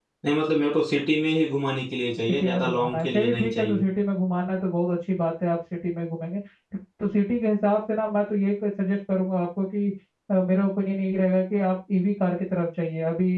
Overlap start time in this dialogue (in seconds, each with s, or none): 2.3 s